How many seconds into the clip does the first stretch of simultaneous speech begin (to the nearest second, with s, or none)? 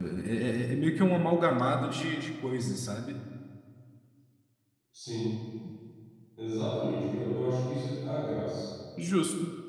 none